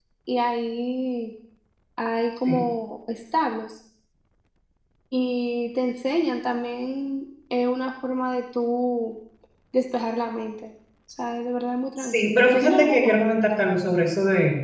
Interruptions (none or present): present